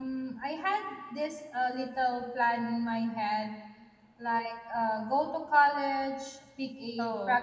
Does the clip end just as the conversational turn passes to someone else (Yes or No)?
No